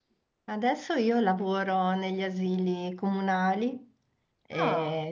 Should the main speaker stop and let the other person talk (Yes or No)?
No